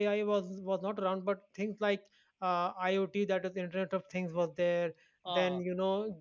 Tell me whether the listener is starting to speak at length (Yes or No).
No